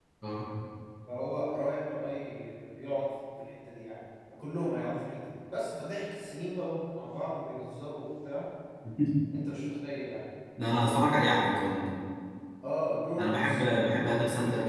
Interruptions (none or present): present